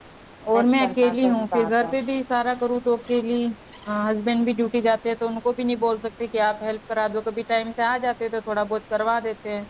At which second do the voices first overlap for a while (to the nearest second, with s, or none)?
1 s